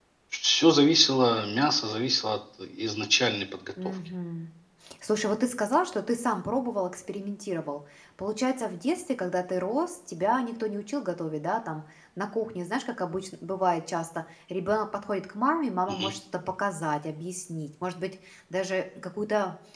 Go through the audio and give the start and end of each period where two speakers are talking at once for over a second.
none

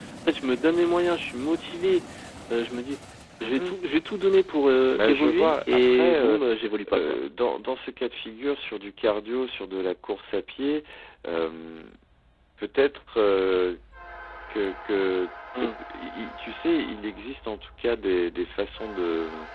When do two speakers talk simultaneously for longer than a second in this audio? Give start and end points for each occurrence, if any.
4.9-6.4

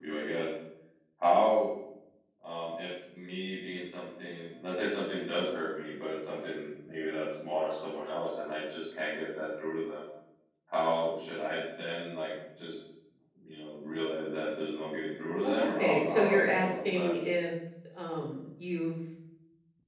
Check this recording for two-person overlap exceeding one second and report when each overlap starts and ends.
15.4-17.2

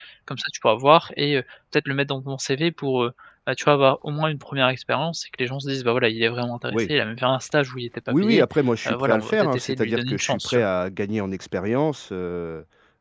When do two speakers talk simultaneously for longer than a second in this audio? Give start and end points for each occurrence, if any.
8.9-10.6

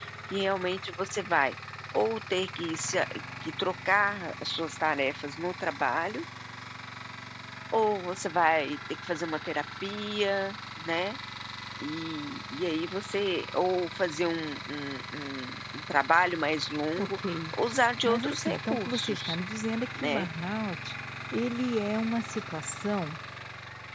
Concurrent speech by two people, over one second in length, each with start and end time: 18.0-19.4

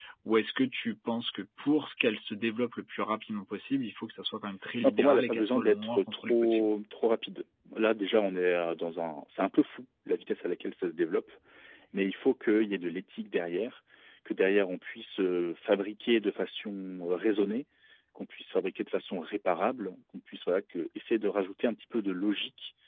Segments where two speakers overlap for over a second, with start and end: 4.8-6.7

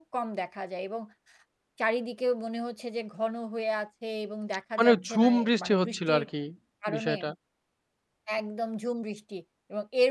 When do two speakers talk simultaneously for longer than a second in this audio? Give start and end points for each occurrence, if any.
4.8-6.2

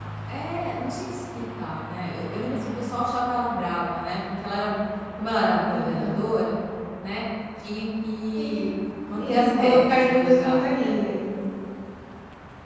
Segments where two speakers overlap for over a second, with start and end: 9.2-10.6

